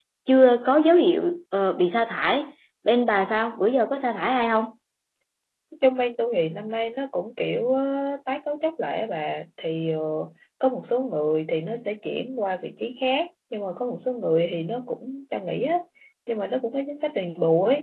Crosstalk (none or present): none